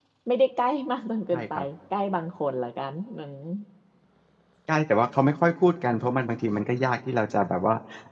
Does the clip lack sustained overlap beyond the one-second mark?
Yes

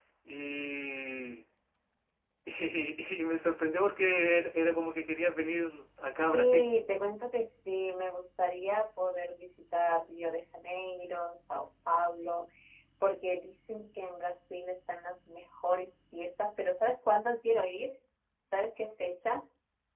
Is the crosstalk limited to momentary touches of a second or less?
Yes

